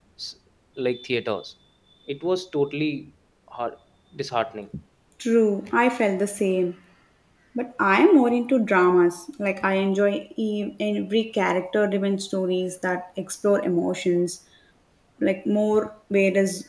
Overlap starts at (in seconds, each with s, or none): none